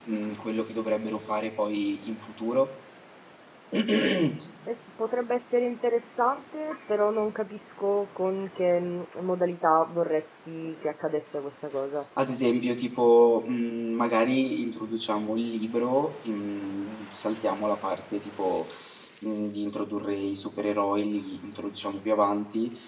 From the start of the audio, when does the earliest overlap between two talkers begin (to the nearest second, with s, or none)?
none